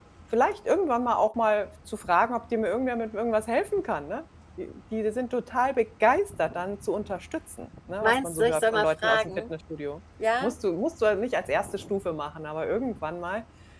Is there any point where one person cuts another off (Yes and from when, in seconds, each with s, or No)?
Yes, from 8.0 s